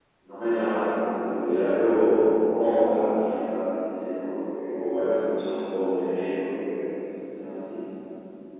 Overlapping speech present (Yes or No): No